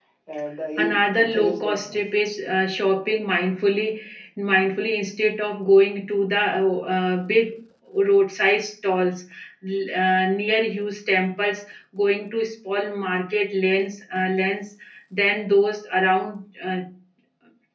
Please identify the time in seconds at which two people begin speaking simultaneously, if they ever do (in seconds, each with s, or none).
0.8 s